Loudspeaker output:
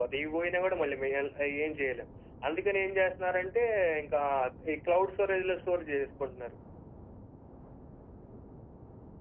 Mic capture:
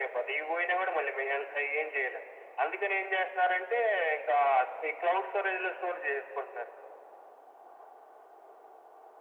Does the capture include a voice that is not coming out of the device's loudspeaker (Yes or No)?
No